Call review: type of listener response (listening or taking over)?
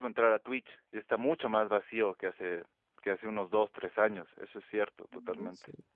taking over